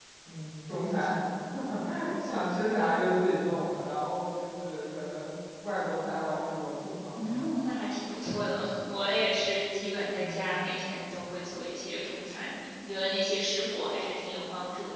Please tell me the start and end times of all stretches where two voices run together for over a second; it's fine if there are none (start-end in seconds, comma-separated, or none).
none